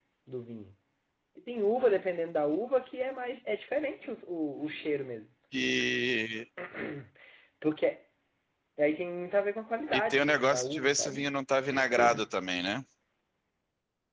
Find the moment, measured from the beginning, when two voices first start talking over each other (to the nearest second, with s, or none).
10 s